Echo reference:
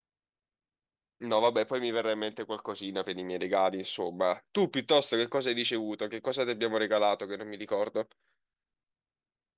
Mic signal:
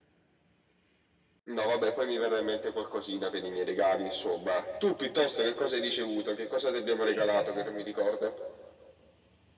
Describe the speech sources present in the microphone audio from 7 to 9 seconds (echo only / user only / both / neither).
both